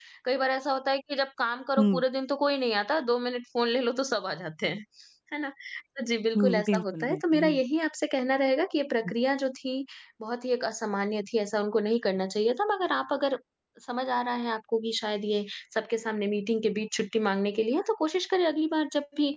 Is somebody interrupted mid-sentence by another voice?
Yes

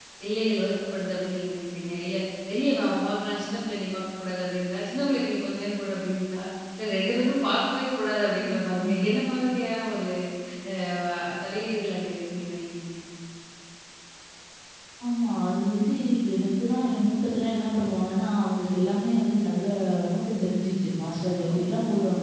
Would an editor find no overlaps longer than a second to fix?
Yes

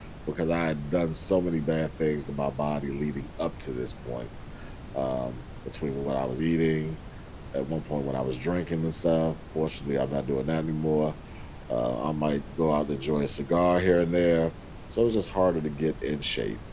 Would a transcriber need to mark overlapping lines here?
No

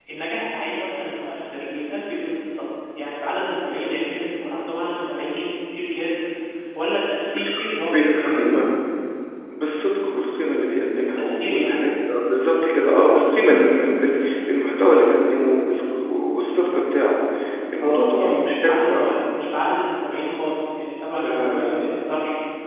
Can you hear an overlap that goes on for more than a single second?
Yes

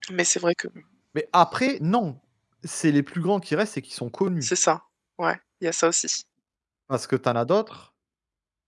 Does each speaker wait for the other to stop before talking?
Yes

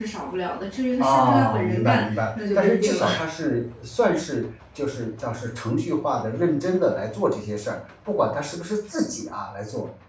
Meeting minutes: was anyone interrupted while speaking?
Yes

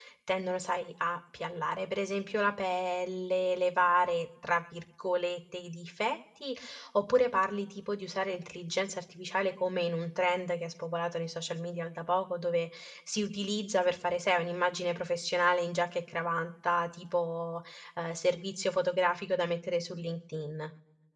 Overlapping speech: No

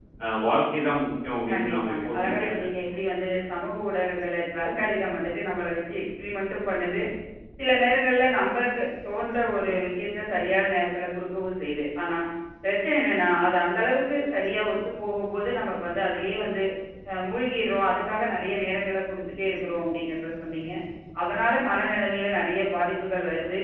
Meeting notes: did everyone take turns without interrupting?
No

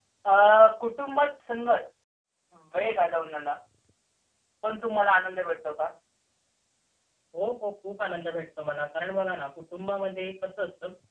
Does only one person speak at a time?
Yes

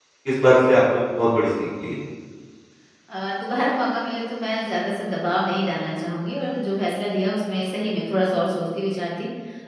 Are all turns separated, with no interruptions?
Yes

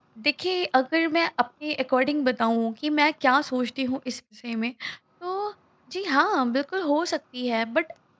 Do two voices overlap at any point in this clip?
No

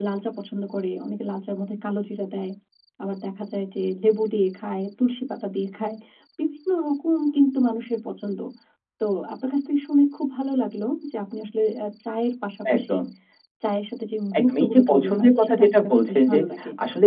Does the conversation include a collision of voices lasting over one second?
Yes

